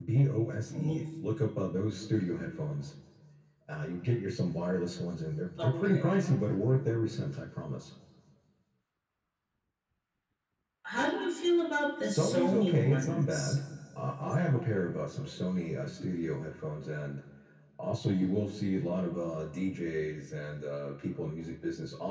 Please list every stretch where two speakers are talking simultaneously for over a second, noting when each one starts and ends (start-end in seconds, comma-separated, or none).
12.0-13.6